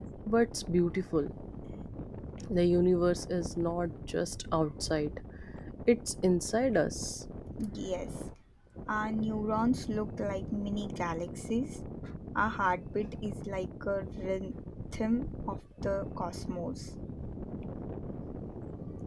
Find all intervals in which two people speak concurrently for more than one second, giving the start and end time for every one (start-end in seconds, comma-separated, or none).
none